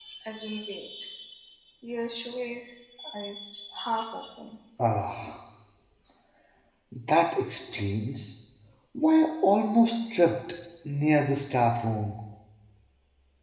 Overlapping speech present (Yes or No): No